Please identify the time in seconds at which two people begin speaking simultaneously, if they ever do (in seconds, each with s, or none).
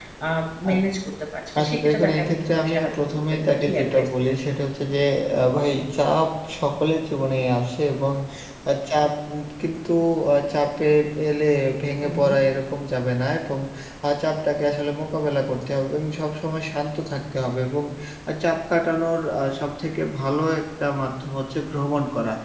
1.6 s